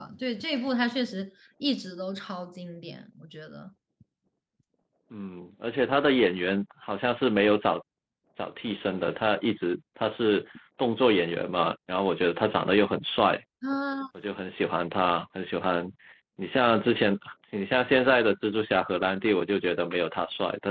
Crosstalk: none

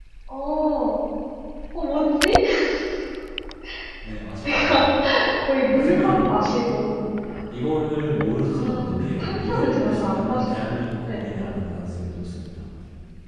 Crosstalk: present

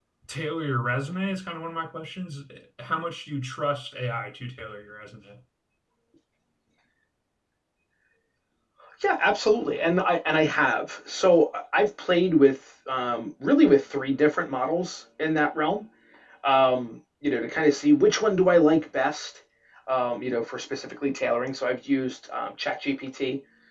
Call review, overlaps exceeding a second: none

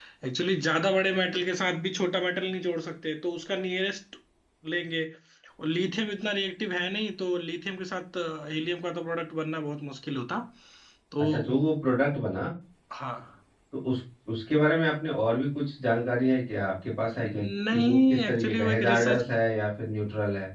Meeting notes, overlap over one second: present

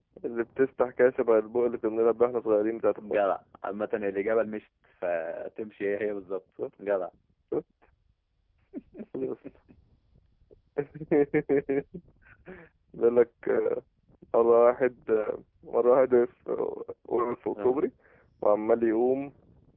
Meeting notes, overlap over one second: none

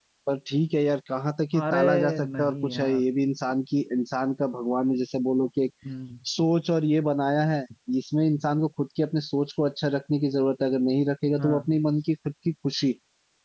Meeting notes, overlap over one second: present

